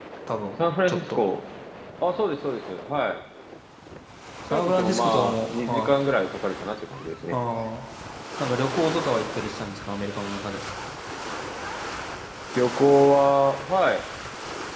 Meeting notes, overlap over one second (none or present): present